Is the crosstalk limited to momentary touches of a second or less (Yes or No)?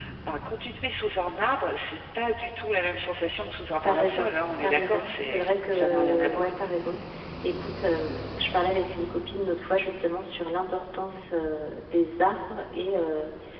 No